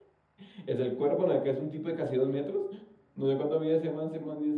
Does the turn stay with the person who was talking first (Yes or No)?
No